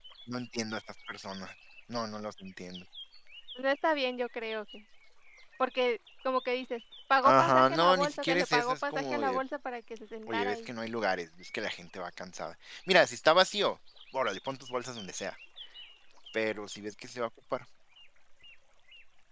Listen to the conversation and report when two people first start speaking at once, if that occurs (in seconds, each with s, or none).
7.2 s